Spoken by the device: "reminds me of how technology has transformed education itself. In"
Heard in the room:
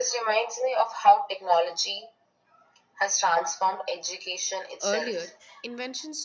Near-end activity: present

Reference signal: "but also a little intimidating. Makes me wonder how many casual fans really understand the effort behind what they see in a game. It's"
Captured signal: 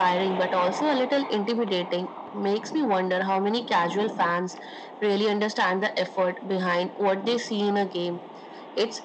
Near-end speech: none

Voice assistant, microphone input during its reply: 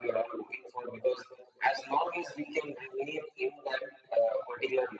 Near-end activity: none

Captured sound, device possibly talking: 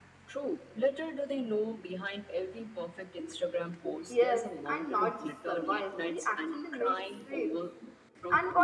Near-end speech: present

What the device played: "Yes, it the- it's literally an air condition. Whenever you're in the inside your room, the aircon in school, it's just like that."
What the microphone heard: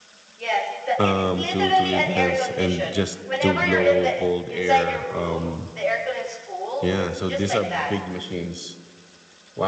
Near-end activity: present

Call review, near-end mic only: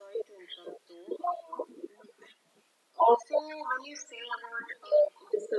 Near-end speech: none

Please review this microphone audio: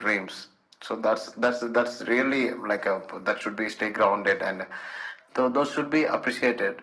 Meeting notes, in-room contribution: none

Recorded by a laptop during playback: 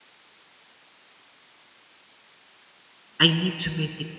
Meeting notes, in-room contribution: present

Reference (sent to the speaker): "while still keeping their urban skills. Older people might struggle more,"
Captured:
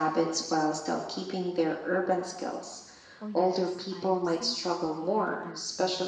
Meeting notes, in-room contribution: present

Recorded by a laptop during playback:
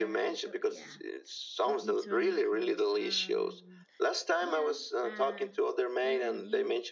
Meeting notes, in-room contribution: present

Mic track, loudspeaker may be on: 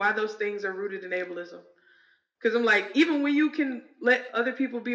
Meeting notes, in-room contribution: none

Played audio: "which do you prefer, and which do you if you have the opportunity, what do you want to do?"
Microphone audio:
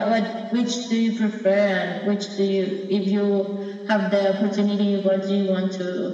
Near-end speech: none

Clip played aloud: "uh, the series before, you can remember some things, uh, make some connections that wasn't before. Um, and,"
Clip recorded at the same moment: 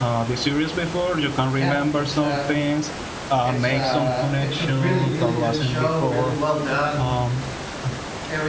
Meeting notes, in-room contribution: present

